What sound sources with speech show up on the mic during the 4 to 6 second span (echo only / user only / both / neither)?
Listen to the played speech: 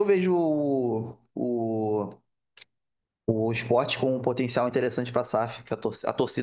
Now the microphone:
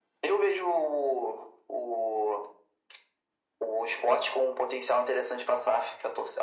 echo only